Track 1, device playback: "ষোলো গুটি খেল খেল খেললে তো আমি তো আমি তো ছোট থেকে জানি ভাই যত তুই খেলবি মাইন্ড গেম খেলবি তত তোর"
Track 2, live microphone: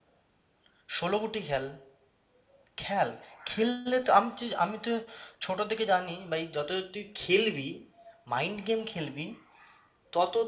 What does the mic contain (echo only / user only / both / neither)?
echo only